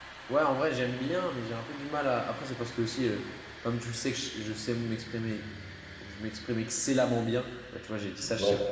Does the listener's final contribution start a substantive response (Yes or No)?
No